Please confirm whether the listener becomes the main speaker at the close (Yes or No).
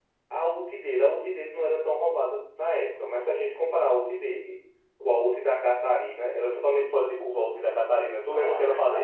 Yes